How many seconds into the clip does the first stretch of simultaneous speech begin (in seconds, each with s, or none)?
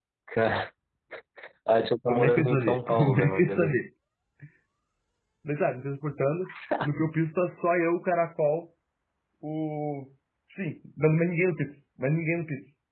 2.1 s